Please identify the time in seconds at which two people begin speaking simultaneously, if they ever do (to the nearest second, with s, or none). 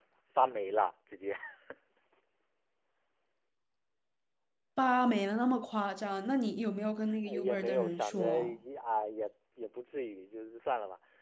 7 s